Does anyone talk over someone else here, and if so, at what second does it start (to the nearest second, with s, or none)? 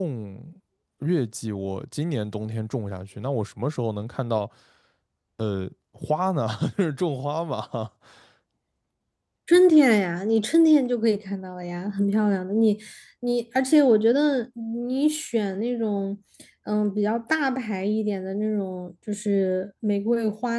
none